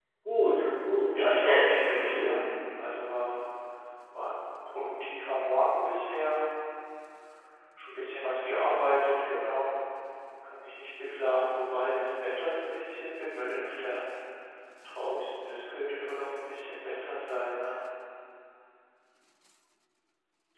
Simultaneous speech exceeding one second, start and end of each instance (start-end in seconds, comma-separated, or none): 1.1-2.4